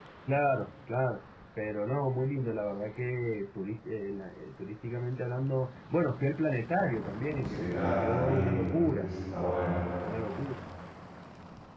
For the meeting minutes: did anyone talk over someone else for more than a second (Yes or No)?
Yes